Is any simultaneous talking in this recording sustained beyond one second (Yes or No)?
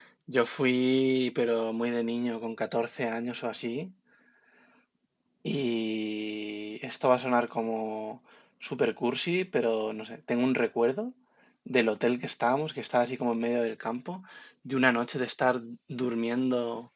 No